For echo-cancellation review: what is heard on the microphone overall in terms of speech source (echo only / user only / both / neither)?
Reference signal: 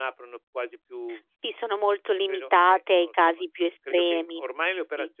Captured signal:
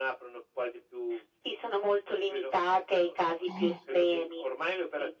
both